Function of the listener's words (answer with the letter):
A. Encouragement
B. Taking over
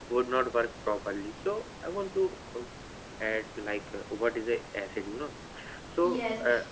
B